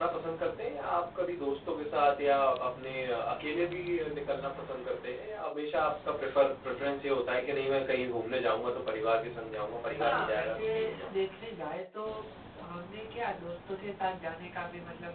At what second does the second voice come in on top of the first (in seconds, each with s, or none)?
10.0 s